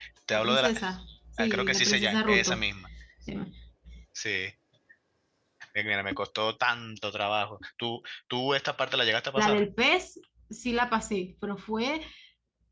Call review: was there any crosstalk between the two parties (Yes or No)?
Yes